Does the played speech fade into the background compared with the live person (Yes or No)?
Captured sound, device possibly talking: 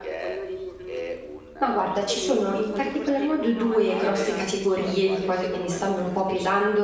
Yes